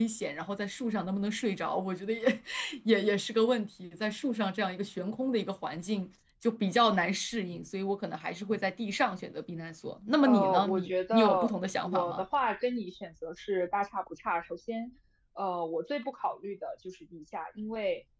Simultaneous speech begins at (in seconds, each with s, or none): 10.2 s